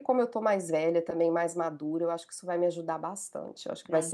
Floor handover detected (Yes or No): Yes